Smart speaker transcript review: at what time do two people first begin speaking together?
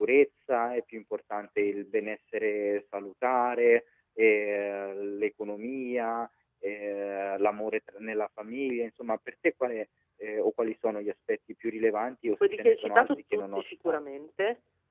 12.6 s

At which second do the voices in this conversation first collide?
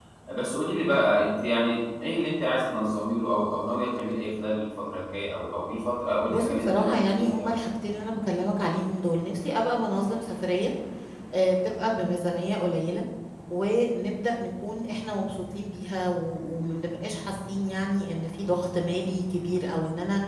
6.3 s

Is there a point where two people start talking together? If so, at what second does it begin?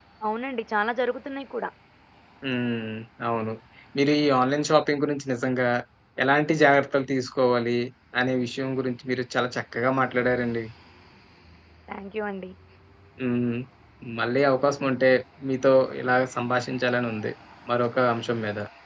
none

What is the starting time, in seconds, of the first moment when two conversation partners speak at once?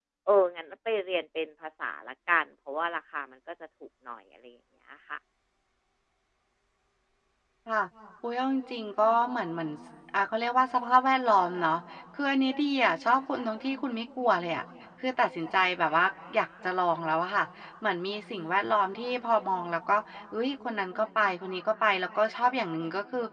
none

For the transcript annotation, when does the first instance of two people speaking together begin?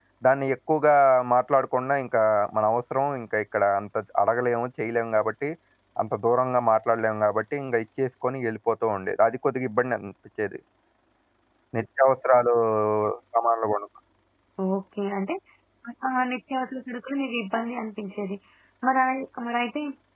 none

